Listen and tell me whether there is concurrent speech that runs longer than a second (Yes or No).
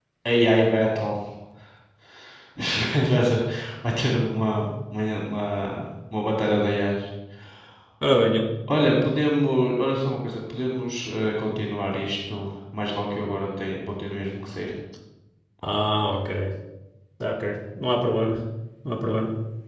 No